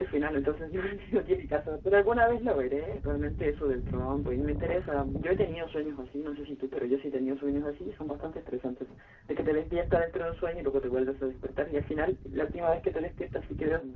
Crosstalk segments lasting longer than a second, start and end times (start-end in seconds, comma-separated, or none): none